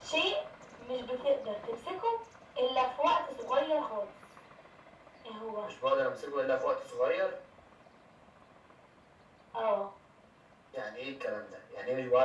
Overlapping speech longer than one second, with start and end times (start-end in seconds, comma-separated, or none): none